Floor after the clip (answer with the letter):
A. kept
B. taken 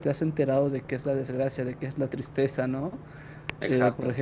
A